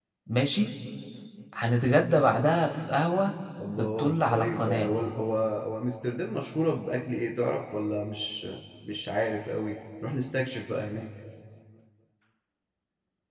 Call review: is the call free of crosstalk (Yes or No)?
No